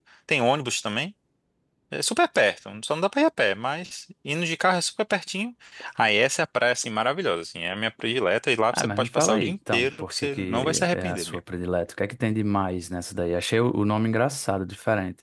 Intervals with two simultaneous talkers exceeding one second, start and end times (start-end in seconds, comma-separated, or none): 8.7-11.4